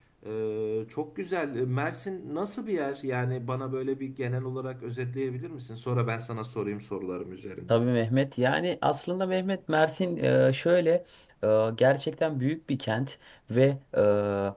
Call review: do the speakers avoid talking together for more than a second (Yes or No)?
Yes